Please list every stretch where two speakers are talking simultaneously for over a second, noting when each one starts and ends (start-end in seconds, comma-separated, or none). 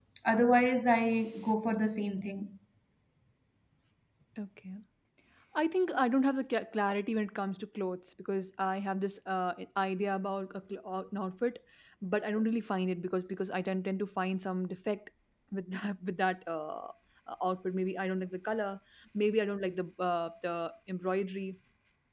none